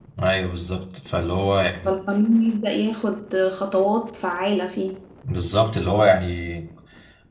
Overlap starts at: none

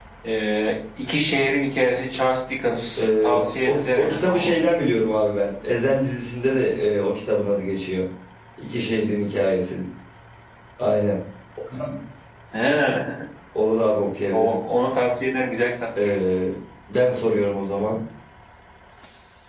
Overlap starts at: 3.0 s

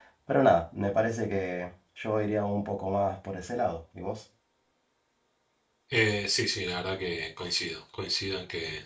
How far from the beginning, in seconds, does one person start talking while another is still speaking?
none

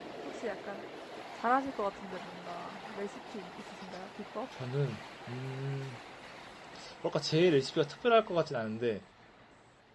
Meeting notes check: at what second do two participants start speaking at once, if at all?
none

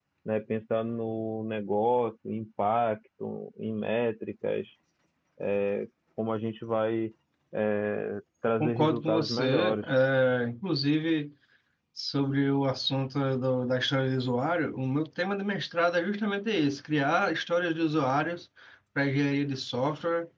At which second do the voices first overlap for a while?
8.6 s

